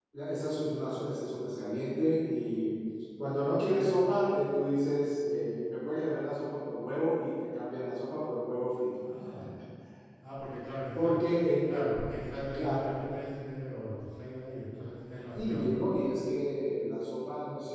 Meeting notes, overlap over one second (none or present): none